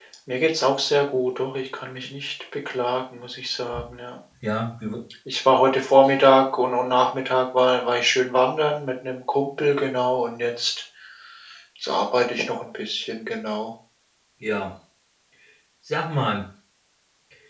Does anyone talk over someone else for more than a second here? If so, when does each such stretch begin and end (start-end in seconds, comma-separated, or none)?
none